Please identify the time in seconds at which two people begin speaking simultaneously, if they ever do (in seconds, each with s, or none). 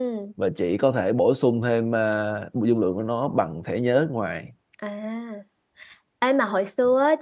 none